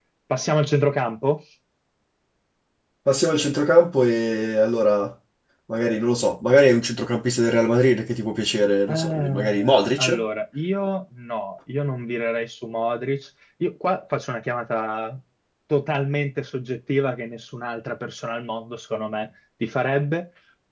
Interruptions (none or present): present